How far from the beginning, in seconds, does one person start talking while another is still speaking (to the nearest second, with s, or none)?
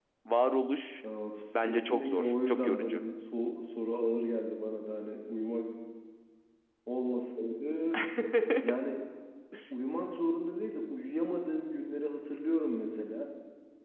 2 s